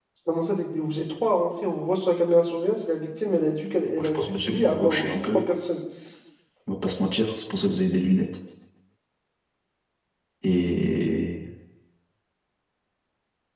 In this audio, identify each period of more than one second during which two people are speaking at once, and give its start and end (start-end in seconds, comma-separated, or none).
4.0-5.4